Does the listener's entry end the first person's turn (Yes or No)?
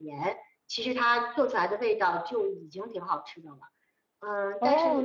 Yes